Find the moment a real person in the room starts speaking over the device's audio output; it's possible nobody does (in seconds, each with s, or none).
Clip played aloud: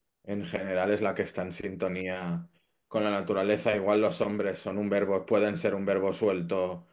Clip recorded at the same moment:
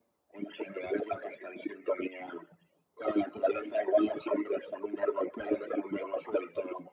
none